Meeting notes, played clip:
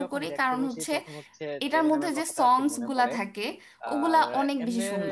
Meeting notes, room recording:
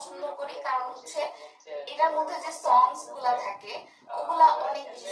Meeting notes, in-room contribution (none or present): none